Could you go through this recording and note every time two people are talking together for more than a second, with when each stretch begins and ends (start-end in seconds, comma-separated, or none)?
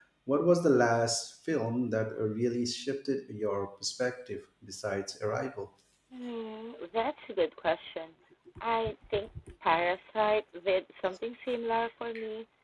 none